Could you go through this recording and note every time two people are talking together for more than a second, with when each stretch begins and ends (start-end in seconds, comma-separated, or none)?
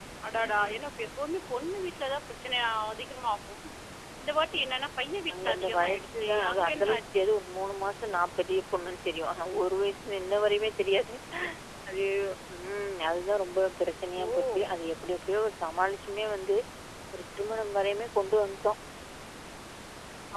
5.3-7.3